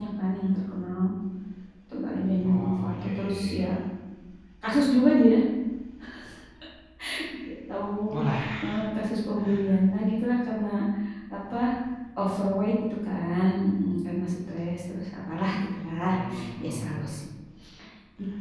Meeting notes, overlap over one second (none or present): present